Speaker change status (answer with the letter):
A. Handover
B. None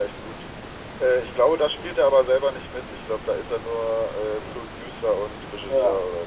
A